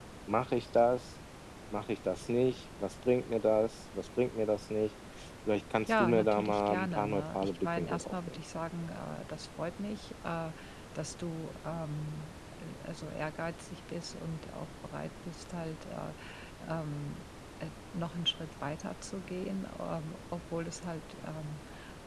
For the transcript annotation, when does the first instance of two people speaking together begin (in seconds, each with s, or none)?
5.9 s